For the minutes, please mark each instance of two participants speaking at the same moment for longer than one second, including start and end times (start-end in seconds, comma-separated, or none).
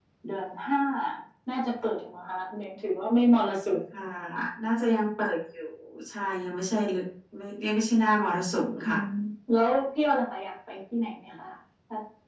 none